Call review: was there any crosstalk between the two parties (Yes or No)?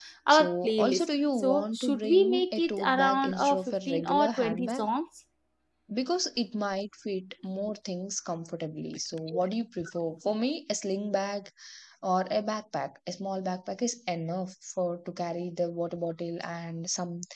Yes